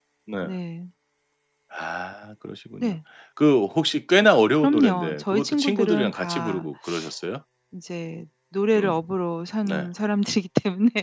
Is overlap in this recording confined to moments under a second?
No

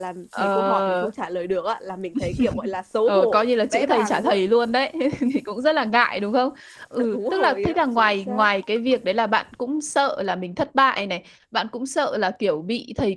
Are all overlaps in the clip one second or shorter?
No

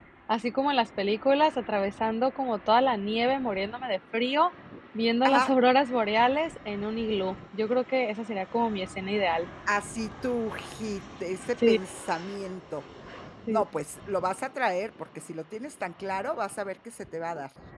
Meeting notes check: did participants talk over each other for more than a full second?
No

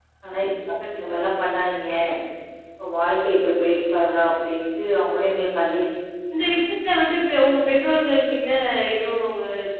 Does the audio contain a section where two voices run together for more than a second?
No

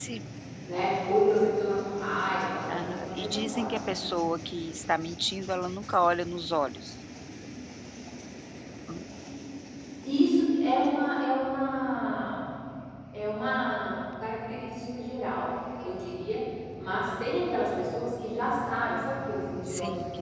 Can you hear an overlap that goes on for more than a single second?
Yes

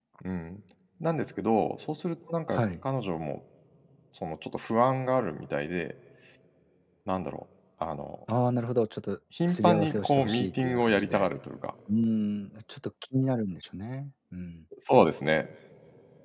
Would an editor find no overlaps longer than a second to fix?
No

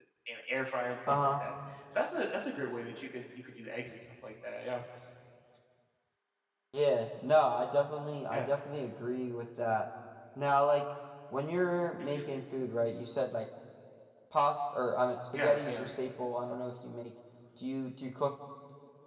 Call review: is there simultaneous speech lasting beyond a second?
No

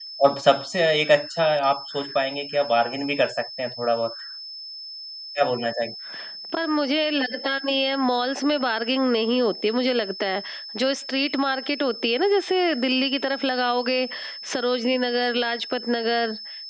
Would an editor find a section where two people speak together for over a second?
No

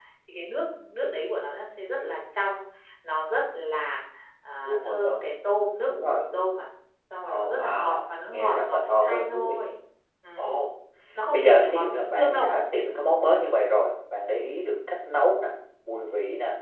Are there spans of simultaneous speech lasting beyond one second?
Yes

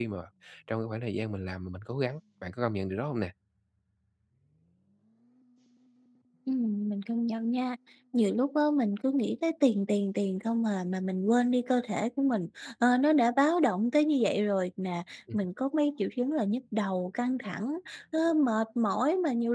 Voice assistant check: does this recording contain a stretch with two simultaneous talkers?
No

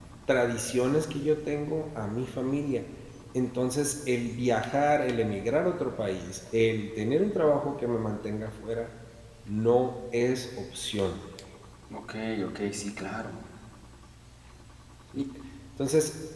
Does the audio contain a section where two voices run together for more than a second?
No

